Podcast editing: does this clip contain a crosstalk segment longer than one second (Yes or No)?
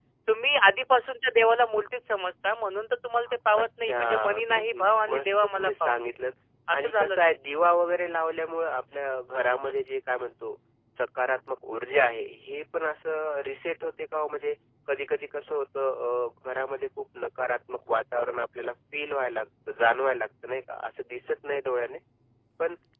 Yes